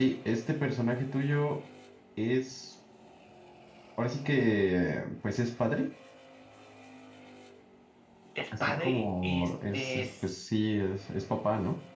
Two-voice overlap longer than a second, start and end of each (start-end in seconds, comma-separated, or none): 8.6-10.1